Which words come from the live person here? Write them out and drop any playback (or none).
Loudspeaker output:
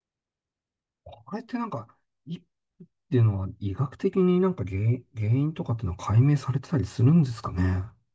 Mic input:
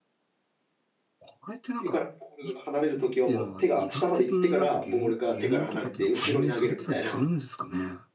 手からボールが離れるときはもう手が下まで行ってから、ボールが手から離れて、後ろに投げるみたいな。